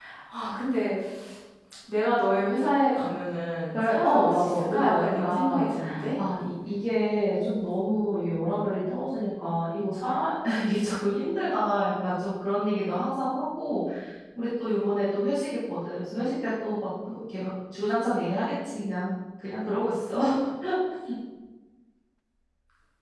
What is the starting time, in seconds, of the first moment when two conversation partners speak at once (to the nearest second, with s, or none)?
4 s